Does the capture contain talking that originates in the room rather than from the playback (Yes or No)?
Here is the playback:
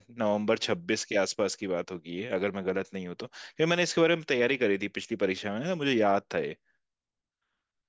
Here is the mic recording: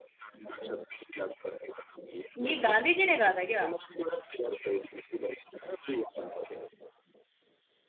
Yes